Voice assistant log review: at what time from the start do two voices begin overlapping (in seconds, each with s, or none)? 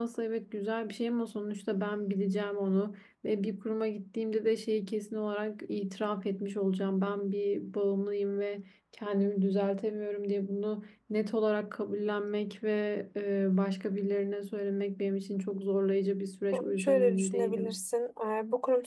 16.5 s